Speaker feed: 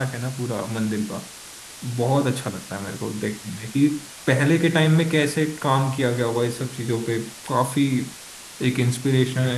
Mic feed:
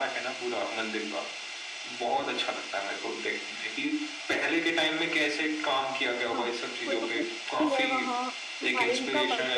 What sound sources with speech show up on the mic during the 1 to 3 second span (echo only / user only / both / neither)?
echo only